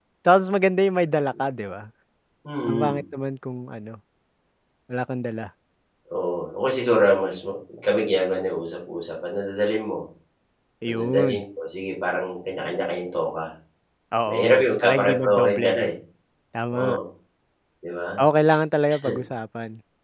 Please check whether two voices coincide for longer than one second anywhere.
Yes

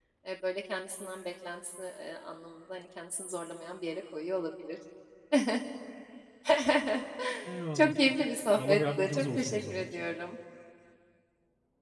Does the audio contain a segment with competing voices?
Yes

